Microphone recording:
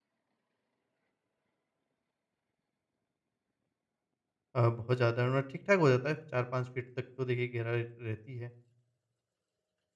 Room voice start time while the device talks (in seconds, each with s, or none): 4.5 s